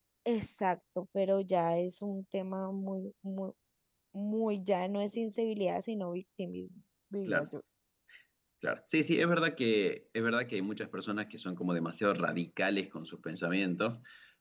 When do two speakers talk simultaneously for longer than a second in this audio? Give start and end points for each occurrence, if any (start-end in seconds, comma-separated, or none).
none